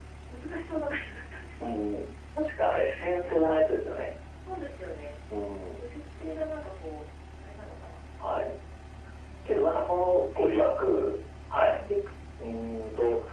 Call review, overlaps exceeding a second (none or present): present